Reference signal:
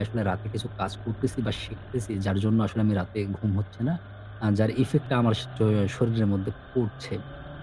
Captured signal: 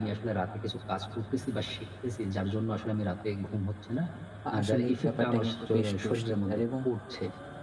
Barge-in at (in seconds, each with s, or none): 4.5 s